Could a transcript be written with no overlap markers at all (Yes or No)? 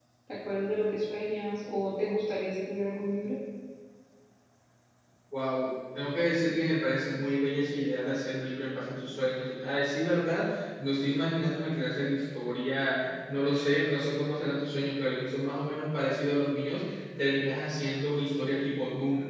Yes